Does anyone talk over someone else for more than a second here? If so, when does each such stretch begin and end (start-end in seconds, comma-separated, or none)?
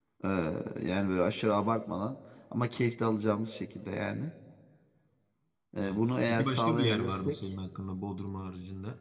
5.8-7.4